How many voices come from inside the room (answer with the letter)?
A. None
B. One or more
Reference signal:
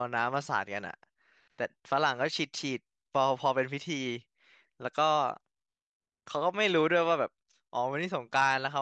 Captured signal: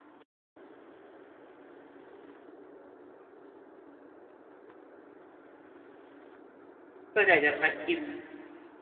B